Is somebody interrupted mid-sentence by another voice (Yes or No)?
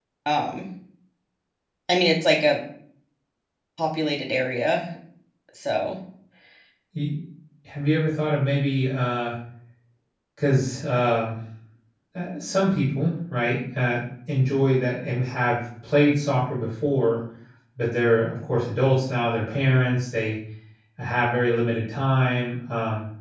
No